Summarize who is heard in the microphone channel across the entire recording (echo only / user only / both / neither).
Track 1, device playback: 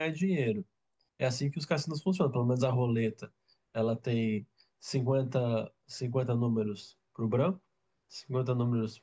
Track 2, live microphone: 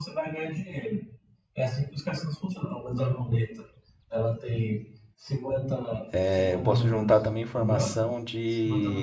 both